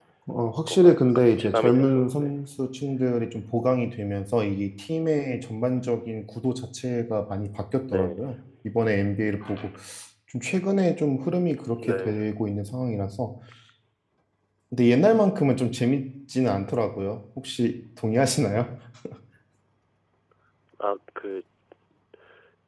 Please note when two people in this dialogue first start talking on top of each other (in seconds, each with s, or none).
0.7 s